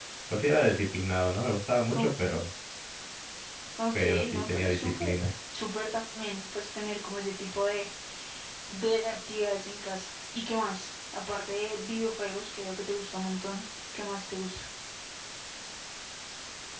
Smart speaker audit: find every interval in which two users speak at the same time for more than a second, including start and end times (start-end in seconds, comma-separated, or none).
3.9-5.2